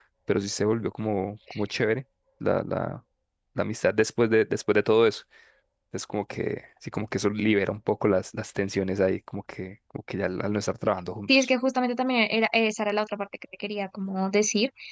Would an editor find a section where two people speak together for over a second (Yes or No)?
No